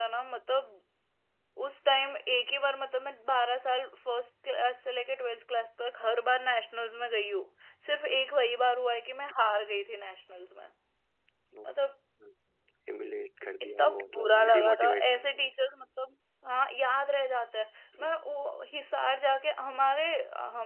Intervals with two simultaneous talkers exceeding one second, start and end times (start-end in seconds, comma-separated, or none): 13.6-15.0